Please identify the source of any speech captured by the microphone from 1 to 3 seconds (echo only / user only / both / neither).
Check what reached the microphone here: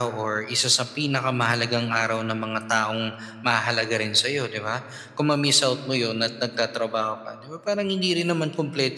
echo only